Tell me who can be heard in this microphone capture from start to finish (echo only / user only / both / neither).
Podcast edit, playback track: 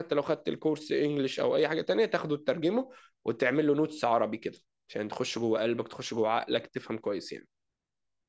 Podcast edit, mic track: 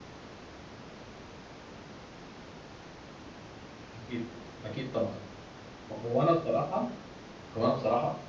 user only